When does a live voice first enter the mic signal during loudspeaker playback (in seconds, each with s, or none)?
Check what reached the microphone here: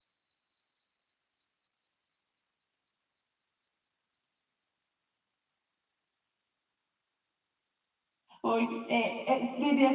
8.4 s